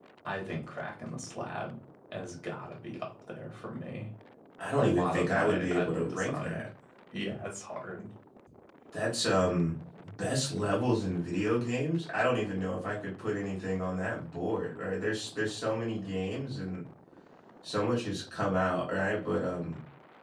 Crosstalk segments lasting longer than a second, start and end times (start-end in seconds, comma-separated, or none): 4.8-6.7